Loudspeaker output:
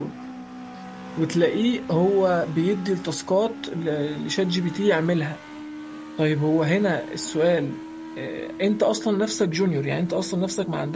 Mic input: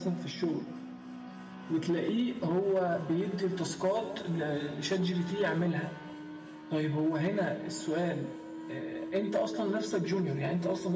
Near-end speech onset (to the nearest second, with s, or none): none